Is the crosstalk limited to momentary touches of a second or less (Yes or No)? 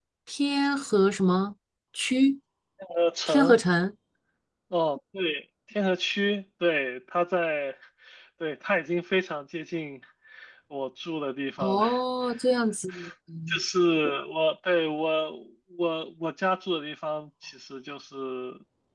Yes